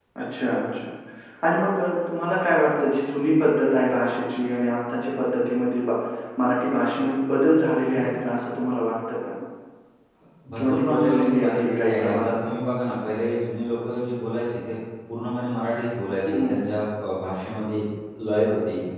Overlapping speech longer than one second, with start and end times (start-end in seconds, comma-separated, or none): 10.6-12.3